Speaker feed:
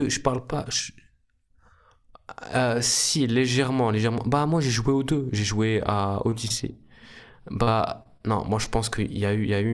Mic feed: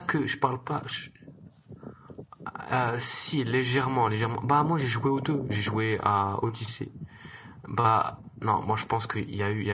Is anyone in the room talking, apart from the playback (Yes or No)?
No